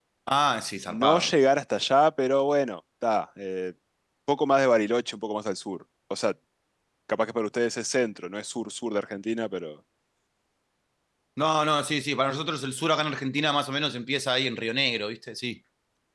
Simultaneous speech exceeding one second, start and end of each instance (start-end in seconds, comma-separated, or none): none